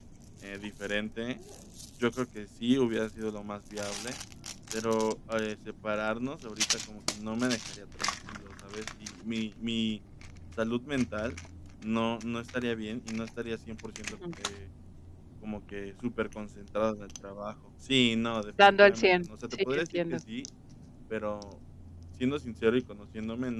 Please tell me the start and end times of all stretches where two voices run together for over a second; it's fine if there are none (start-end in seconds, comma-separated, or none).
18.6-20.2